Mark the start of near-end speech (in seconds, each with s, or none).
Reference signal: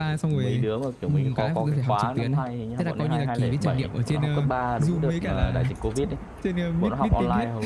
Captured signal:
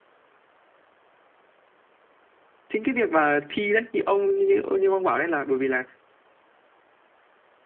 2.7 s